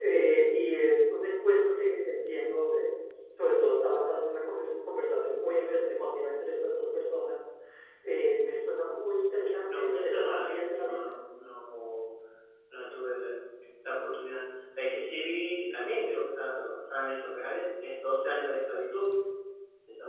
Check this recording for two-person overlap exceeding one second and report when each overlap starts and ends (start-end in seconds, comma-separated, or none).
9.7-11.0